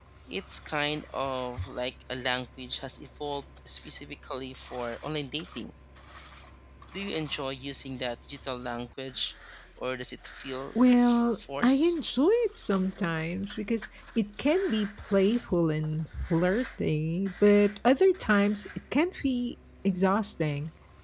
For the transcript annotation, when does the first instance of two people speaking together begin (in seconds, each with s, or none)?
10.8 s